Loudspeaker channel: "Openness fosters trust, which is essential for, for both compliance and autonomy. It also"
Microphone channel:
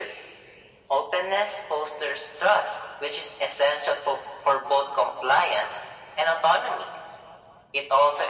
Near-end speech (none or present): none